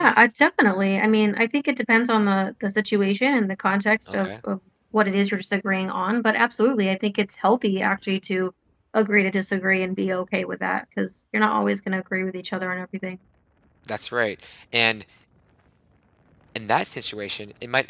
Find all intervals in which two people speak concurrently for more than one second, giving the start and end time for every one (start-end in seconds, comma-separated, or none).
none